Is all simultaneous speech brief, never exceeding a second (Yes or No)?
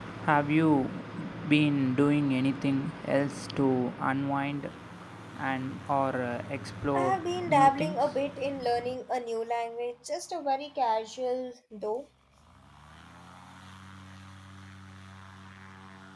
No